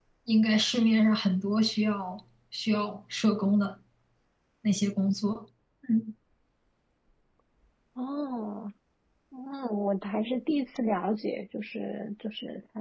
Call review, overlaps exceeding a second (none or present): none